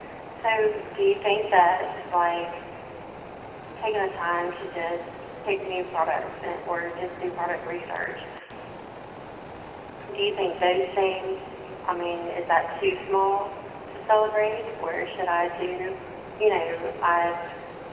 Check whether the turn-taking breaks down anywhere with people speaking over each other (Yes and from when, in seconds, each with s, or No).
No